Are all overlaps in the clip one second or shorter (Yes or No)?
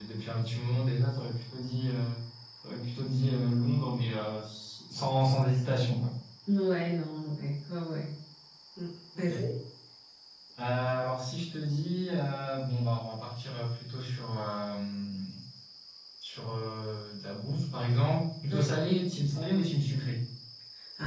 Yes